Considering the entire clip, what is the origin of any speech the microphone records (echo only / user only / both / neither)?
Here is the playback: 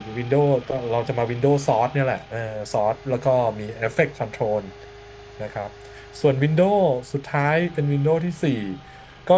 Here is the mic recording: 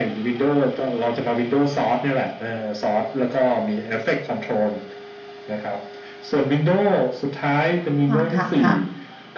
both